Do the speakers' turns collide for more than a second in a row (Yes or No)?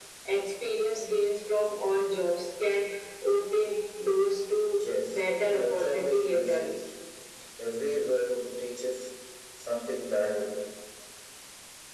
Yes